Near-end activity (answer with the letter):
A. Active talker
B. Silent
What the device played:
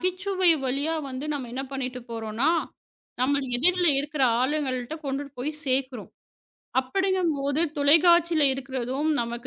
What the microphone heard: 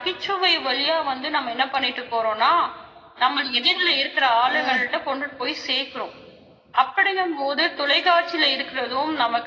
A